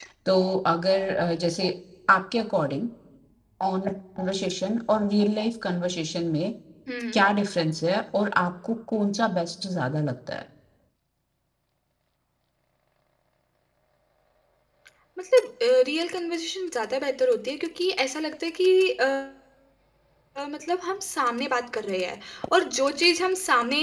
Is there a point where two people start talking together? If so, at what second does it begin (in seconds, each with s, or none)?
none